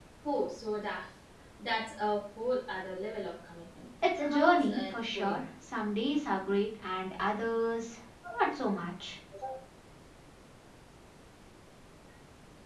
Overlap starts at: 4 s

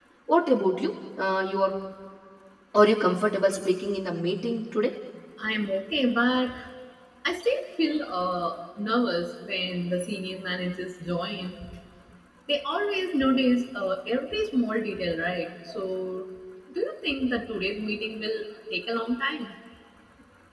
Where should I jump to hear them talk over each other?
none

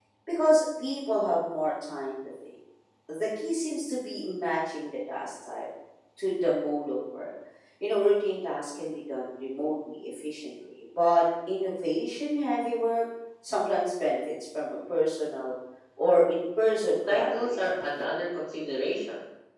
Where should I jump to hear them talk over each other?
17 s

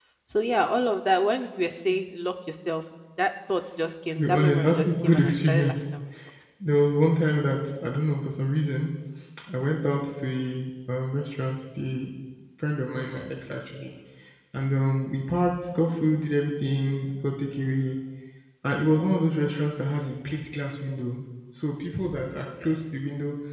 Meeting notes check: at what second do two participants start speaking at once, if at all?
4 s

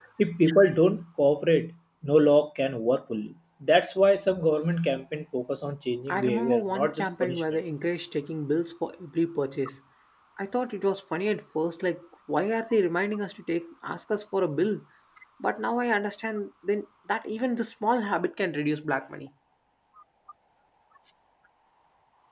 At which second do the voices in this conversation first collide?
6 s

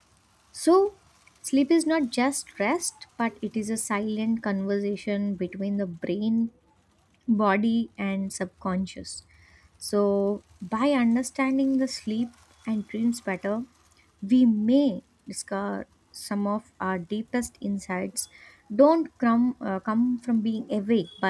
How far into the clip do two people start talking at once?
none

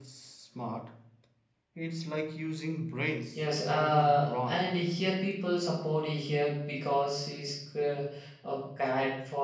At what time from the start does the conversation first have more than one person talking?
3 s

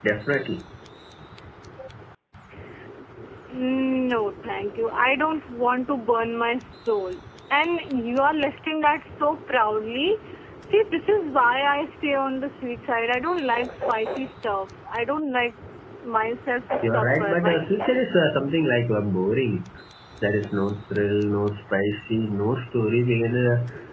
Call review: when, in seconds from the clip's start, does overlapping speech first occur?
17 s

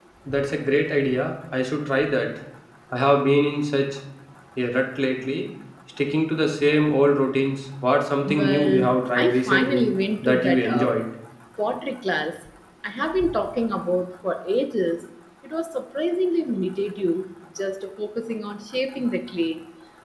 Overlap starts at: 8 s

